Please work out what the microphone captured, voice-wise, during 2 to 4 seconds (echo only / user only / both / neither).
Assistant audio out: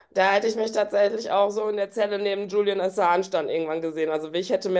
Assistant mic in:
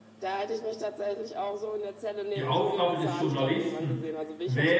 both